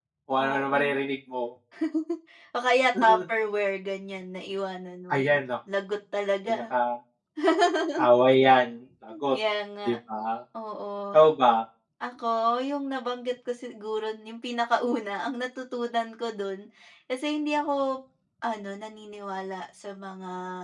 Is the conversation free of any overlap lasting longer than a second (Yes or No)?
Yes